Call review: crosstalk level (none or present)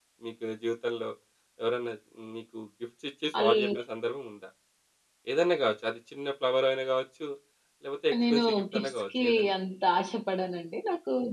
present